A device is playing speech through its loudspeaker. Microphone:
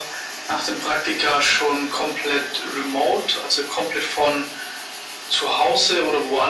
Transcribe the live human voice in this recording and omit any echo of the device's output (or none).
none